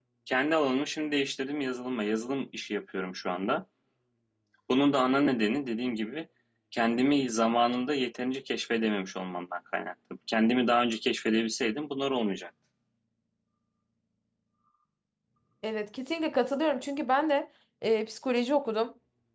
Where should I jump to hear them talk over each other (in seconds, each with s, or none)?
none